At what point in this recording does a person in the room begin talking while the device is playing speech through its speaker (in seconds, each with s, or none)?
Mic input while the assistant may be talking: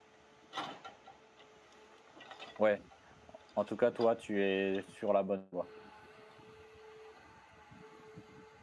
2.6 s